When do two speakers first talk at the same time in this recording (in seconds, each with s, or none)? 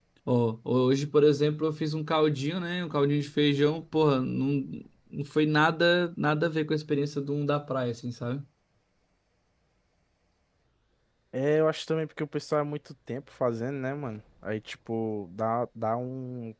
none